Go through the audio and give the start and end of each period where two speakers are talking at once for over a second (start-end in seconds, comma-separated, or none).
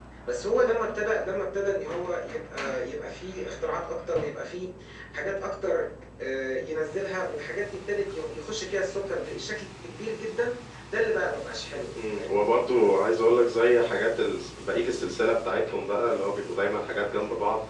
none